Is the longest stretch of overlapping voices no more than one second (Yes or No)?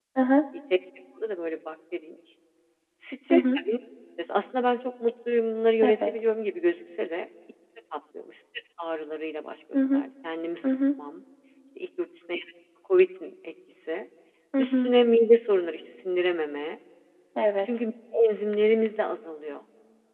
Yes